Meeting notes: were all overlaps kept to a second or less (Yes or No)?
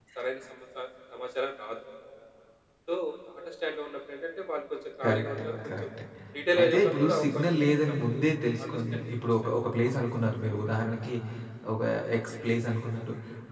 No